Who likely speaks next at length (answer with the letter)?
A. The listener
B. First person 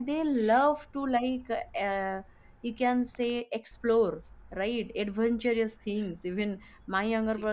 B